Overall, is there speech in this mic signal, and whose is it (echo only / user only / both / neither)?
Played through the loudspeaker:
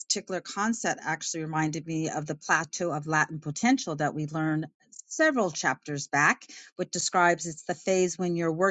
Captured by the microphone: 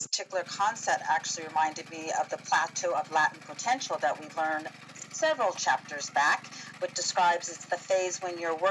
echo only